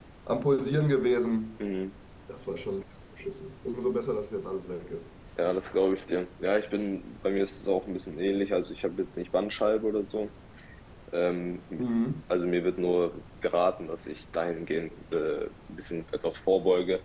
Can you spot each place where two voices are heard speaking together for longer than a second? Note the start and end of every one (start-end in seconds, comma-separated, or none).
none